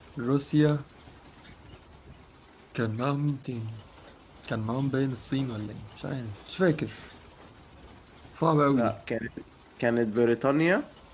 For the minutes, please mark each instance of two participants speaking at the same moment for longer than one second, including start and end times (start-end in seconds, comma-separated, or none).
none